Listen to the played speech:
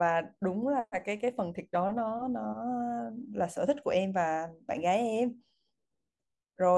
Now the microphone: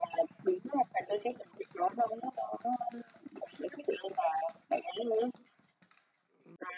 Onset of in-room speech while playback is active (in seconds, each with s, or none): none